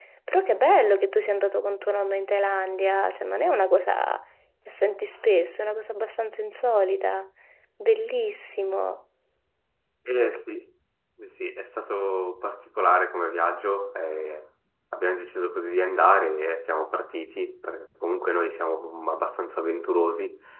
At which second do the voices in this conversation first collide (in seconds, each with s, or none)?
none